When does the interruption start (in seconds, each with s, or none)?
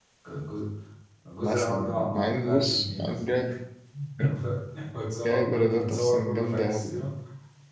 1.4 s